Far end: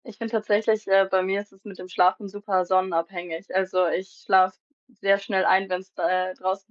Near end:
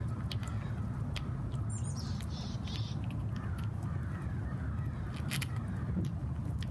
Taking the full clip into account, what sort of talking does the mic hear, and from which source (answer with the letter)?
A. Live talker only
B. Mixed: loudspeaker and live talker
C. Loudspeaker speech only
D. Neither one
D